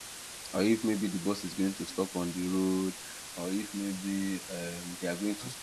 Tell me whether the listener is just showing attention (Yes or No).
Yes